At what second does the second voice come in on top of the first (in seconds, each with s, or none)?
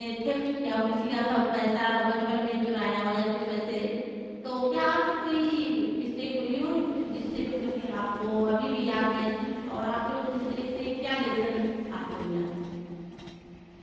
none